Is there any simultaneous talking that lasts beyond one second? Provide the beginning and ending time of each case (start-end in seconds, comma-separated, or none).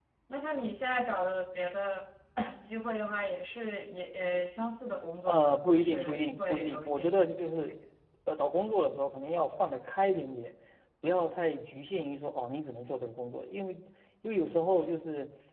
5.3-7.0